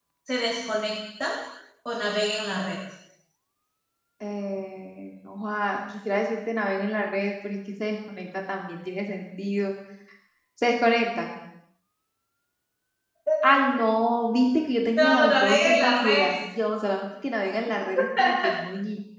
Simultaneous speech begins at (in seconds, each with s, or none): 14.9 s